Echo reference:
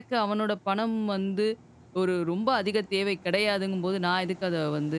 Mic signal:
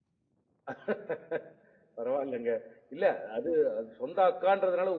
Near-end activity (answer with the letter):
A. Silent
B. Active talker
B